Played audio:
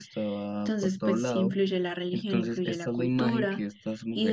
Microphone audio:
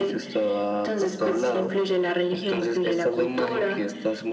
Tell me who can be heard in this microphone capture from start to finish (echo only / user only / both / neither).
echo only